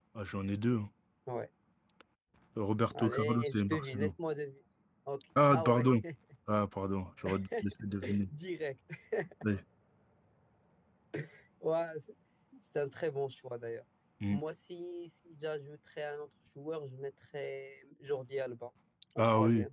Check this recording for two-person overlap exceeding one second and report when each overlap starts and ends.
2.9-4.1

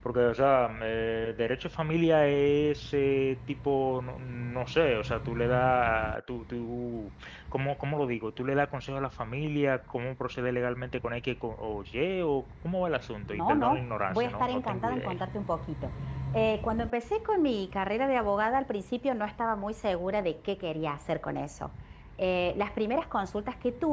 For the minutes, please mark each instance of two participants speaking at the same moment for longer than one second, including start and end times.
13.3-15.1

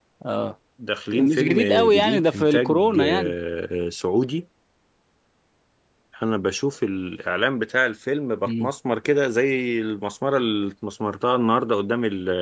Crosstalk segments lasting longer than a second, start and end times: 1.1-3.3

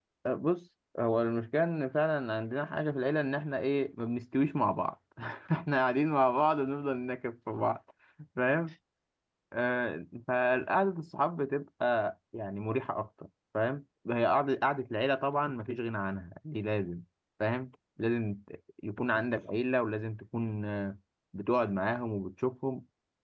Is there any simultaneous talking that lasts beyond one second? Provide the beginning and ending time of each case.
none

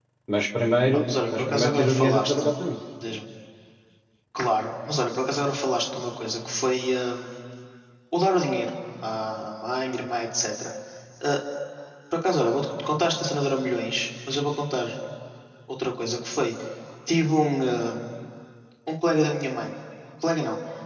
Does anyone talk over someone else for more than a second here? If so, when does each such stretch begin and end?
0.9-2.5

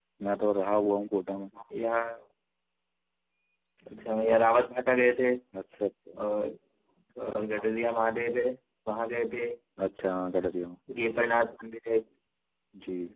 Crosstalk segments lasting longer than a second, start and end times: none

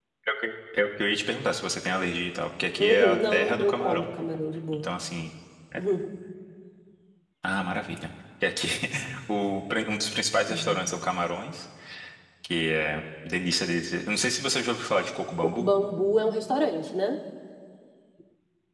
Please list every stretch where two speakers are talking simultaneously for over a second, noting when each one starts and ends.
2.8-4.1

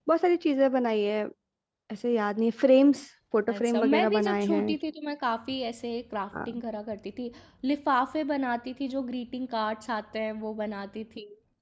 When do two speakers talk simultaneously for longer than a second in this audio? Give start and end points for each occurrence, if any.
3.5-4.8

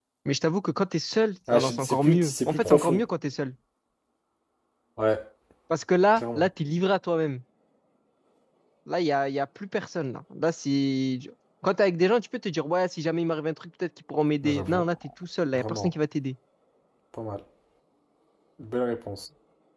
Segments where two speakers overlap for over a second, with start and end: 1.5-3.0

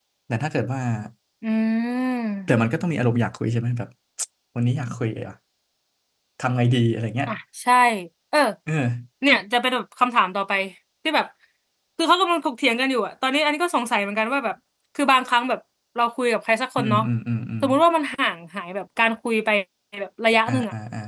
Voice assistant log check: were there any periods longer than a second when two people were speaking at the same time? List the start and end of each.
none

